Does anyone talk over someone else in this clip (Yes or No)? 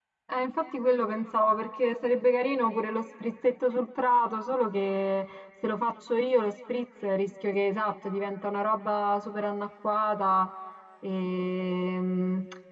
No